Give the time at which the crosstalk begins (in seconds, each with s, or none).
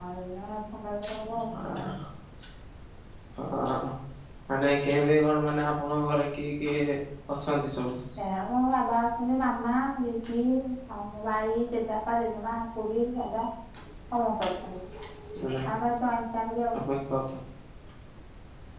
none